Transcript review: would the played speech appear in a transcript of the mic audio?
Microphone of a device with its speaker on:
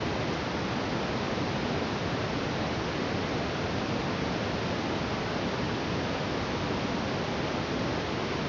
No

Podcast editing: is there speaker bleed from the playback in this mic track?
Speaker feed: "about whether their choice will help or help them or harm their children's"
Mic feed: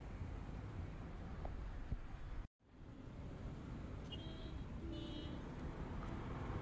No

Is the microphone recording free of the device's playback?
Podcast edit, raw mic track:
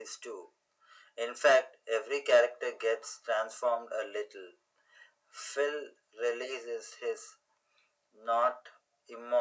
No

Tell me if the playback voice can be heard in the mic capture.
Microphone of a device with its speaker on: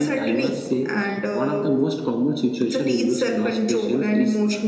Yes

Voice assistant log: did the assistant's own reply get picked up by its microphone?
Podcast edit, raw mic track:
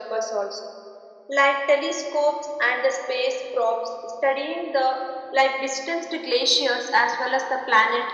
Yes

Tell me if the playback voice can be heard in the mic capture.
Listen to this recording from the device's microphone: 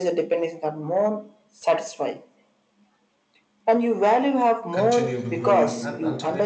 Yes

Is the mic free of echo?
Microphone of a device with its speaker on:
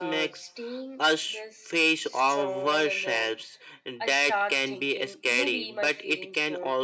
No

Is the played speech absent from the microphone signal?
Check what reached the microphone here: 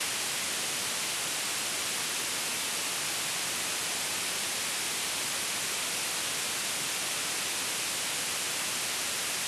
Yes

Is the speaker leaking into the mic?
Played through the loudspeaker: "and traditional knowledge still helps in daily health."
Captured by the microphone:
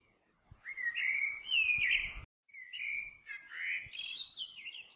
No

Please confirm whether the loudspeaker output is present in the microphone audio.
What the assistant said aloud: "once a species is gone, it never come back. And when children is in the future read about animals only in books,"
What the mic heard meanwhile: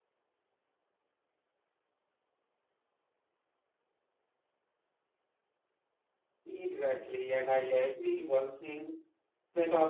No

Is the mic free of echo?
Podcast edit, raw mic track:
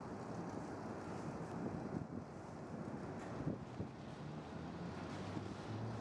Yes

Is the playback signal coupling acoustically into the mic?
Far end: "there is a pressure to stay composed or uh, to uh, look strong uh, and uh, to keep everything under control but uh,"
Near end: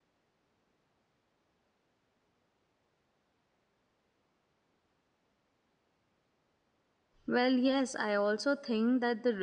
No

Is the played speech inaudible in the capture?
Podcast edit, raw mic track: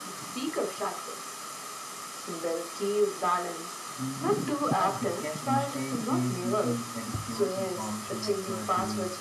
No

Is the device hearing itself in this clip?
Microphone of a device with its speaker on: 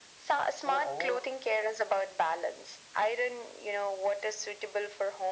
Yes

